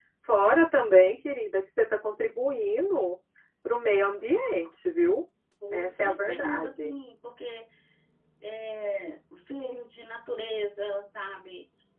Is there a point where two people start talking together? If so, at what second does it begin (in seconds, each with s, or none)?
5.7 s